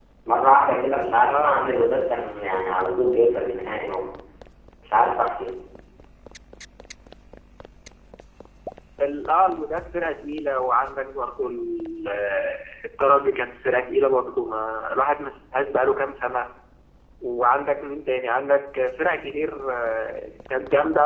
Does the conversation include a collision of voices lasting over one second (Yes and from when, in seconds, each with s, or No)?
No